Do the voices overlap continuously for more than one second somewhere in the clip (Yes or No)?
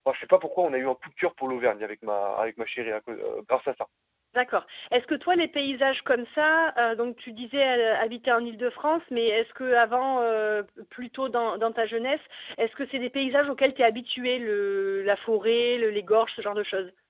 No